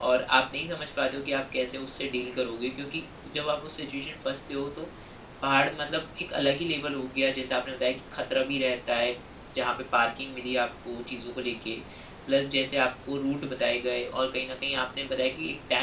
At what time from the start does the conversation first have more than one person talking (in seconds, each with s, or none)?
none